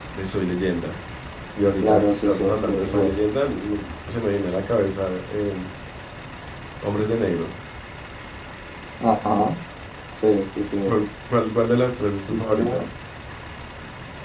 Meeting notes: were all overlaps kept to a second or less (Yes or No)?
No